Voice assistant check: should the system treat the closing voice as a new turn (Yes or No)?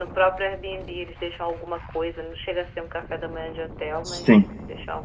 Yes